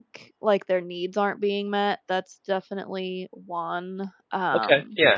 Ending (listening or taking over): taking over